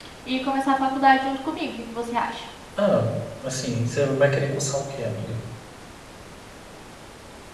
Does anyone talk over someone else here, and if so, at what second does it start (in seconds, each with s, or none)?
none